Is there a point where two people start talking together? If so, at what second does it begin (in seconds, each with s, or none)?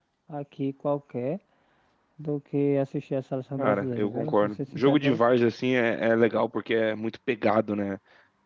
3.6 s